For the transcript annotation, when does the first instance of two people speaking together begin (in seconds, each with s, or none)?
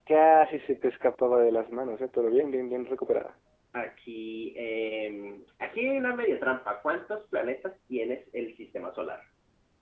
none